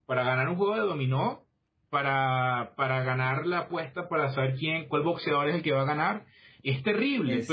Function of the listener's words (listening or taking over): listening